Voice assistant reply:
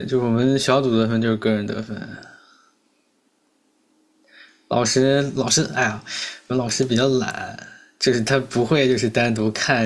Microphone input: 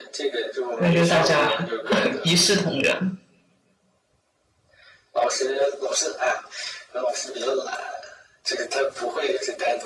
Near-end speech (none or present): present